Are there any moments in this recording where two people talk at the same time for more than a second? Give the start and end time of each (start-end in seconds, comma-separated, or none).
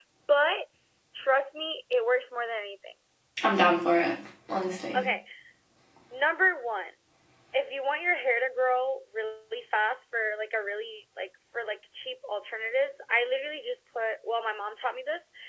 none